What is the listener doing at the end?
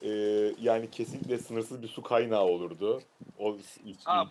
taking over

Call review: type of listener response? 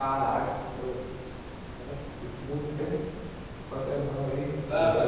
taking over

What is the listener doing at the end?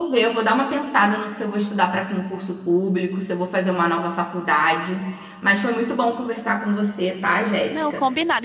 taking over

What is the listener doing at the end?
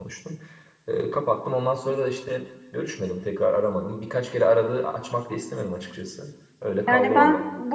taking over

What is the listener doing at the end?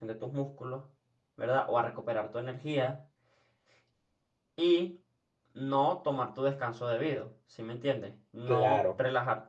listening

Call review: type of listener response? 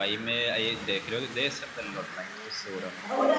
taking over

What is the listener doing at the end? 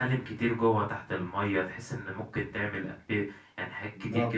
listening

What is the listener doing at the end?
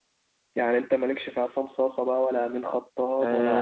taking over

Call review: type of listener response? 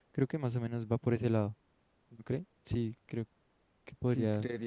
taking over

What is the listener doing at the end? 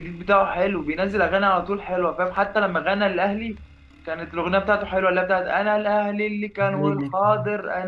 listening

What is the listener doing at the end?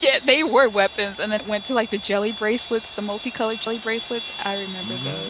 taking over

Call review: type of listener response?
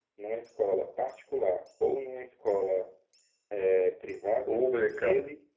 taking over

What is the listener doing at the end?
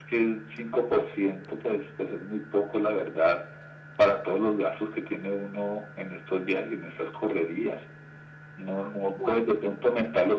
listening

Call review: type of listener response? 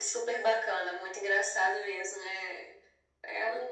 listening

